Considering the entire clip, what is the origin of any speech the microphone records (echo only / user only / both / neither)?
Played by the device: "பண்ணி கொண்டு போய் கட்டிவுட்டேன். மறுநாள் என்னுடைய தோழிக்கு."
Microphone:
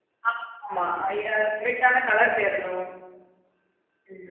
user only